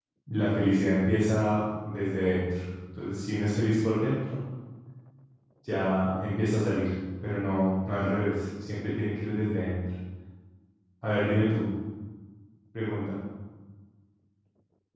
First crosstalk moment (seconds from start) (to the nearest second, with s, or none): none